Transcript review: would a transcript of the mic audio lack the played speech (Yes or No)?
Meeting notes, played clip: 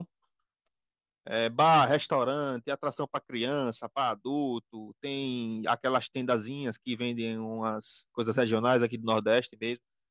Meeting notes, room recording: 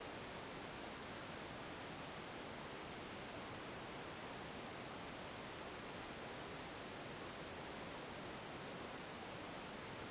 Yes